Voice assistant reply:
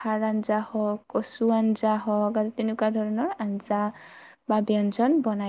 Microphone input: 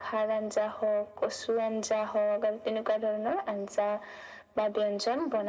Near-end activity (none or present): none